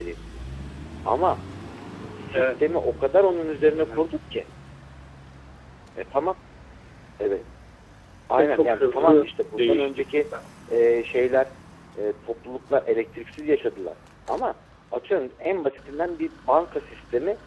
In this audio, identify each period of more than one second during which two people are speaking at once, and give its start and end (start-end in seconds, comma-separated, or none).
8.4-10.3